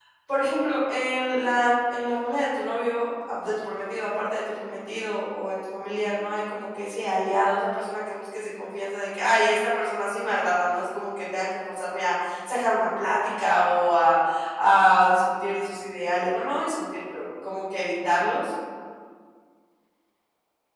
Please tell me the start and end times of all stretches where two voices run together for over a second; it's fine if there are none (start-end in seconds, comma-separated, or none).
none